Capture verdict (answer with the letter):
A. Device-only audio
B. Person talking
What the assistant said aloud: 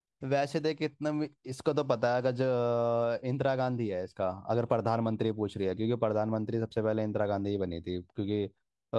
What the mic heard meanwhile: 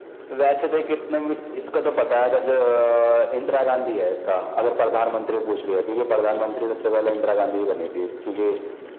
A